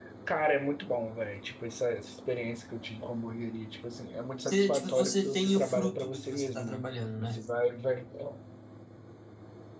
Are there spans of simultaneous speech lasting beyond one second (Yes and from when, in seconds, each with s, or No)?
Yes, from 4.4 s